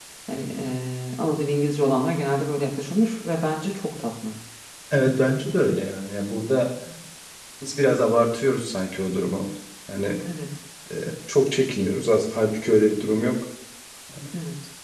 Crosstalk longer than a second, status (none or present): none